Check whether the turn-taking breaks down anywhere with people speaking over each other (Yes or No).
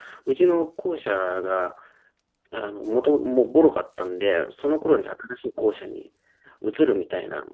No